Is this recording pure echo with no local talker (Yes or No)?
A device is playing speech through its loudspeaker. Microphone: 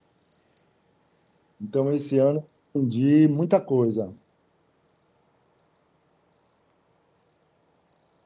No